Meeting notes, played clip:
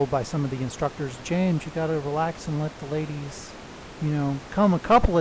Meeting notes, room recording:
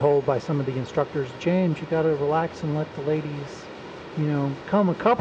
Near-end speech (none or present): none